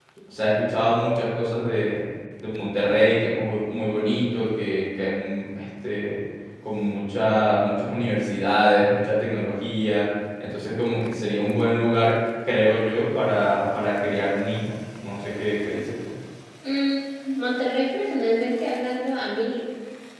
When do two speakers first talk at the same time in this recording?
none

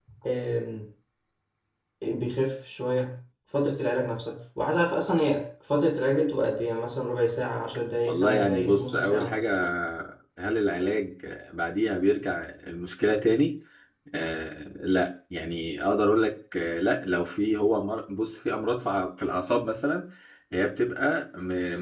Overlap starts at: 8.1 s

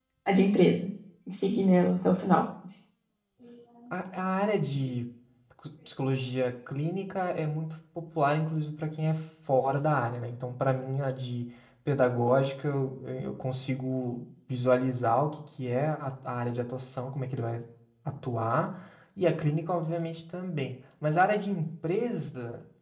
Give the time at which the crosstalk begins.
none

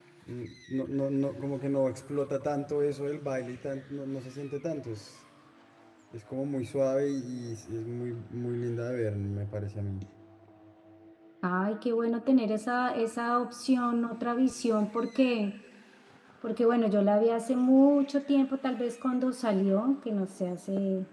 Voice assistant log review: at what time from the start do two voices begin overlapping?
none

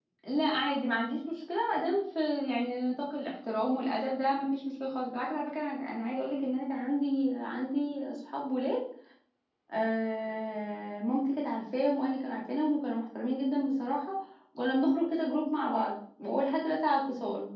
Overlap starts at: none

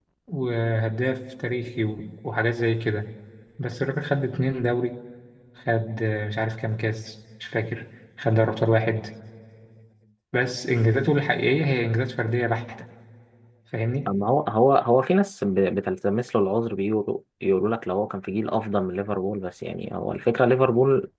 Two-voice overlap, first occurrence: none

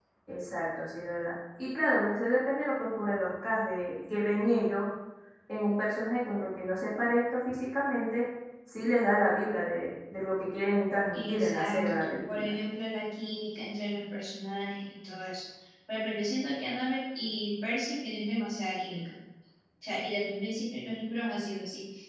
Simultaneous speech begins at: 11.1 s

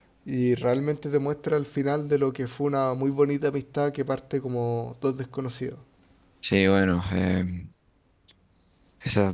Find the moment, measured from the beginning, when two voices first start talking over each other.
none

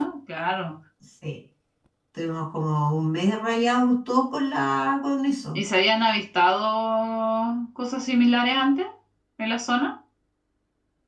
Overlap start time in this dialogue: none

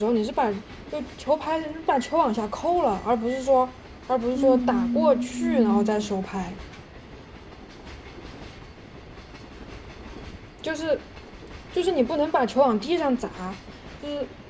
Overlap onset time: 4.3 s

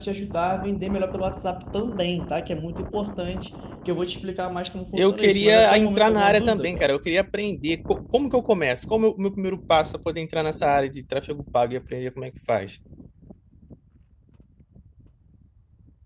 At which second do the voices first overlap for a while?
4.9 s

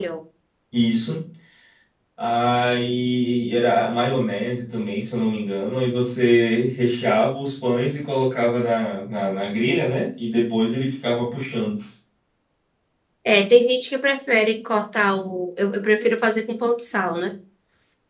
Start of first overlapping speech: none

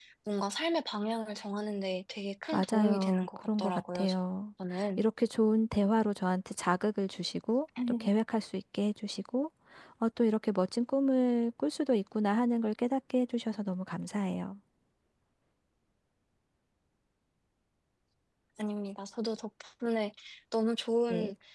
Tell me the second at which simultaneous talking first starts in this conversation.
2.5 s

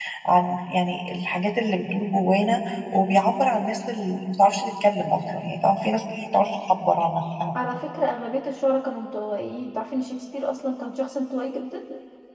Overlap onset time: none

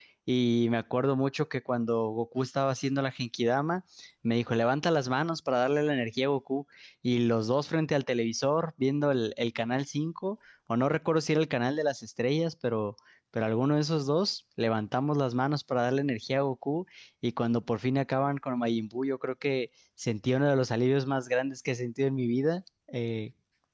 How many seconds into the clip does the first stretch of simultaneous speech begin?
none

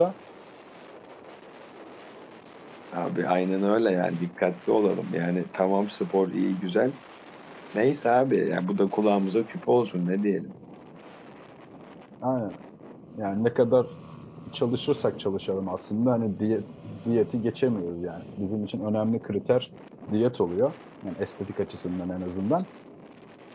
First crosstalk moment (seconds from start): none

